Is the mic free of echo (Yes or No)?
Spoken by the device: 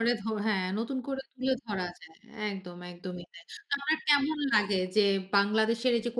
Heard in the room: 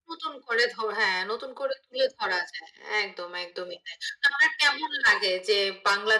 No